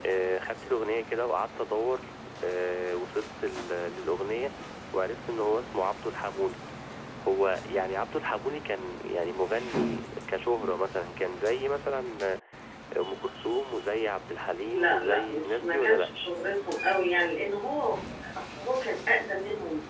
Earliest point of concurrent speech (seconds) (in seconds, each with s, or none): 14.6 s